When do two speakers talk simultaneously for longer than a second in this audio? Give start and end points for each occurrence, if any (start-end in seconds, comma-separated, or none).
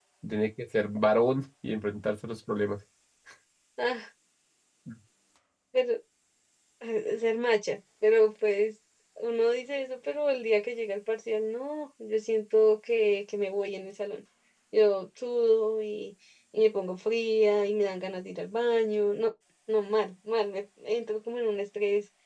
none